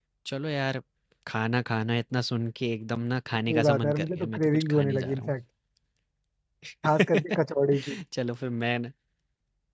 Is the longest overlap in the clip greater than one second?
Yes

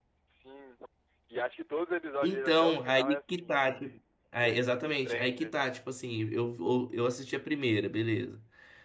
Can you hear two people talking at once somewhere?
Yes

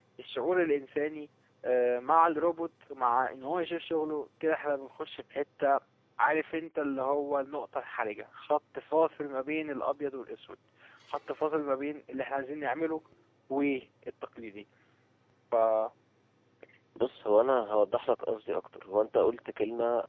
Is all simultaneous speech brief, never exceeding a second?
Yes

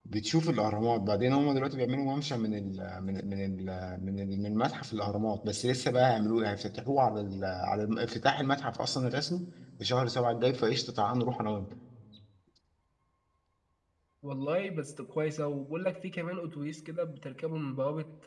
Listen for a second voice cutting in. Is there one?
No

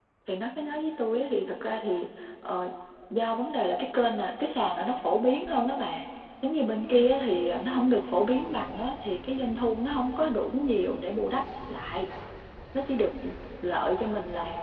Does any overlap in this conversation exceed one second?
No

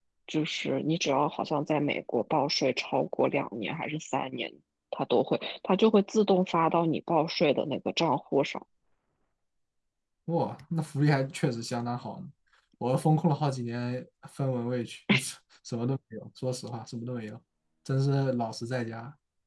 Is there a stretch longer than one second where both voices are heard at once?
No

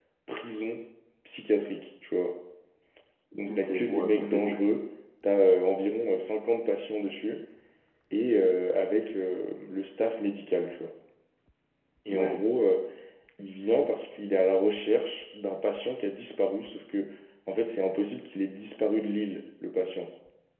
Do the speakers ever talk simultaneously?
Yes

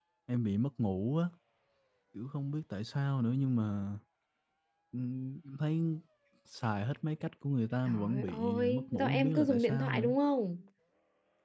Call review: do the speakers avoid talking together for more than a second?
No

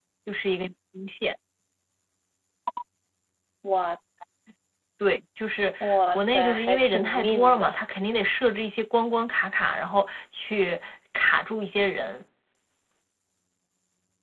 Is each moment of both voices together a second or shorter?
No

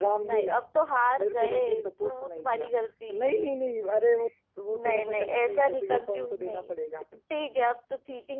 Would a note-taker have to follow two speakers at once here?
Yes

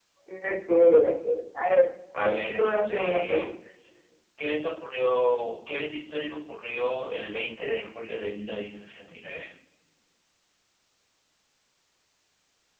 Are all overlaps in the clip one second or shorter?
No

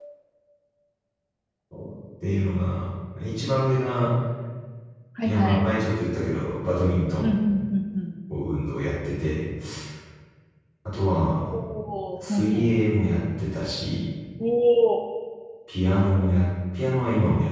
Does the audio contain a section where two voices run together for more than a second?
No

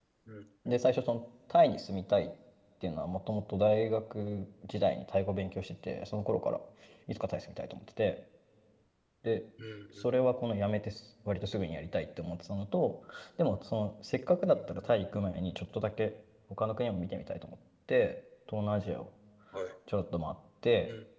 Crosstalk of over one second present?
No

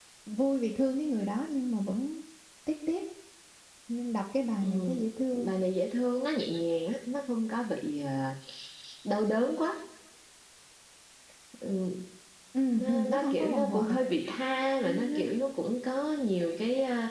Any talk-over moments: Yes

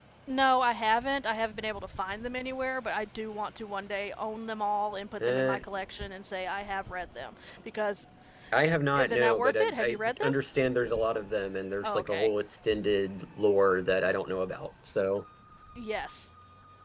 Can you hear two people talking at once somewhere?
Yes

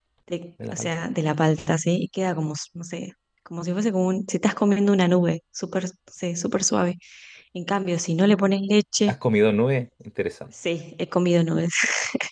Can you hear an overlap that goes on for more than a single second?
No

